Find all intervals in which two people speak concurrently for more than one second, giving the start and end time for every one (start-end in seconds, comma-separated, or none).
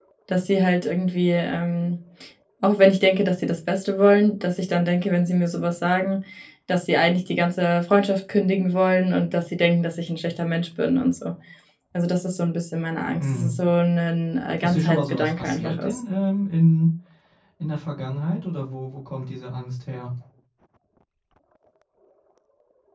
14.6-16.0